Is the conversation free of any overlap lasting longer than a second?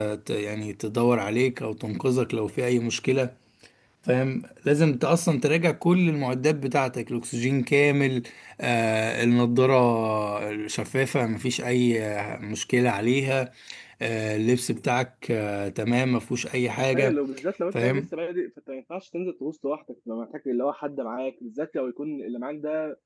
Yes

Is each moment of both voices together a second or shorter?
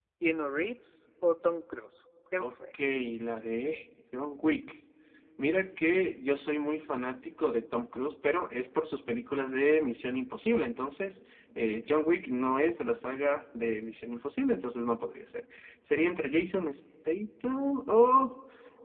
Yes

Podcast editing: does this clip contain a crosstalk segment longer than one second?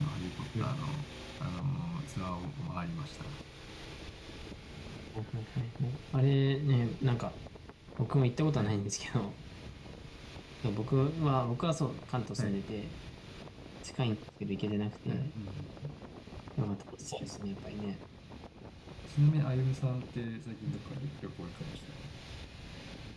No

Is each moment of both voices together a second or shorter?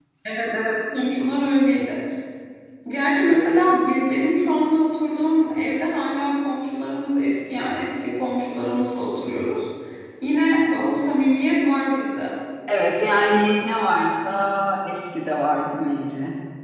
Yes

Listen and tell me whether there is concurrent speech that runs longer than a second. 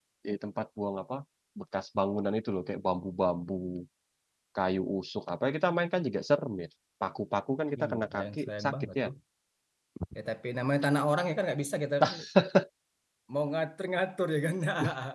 Yes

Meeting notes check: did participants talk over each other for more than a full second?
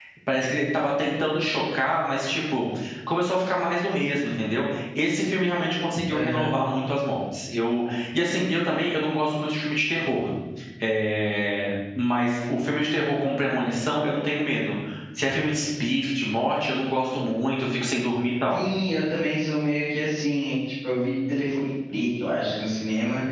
No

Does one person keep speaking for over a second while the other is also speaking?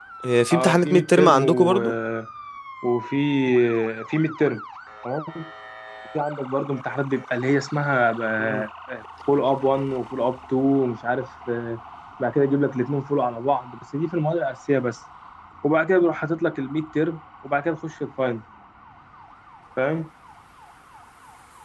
Yes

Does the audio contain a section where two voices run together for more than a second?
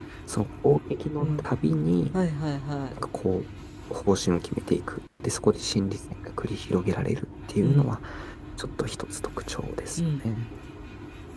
No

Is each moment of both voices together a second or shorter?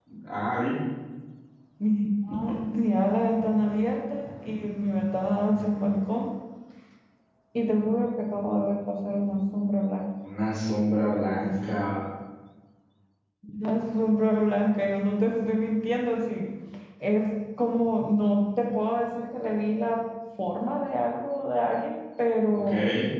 Yes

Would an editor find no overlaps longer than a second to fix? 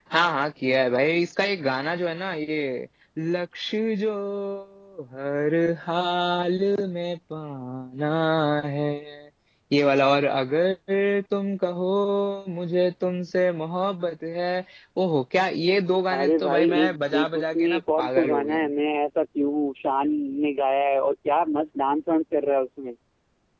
No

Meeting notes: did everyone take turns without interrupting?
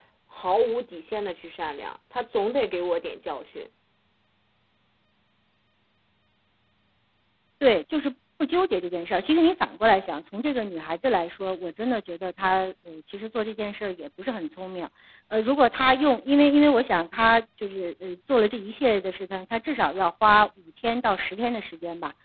Yes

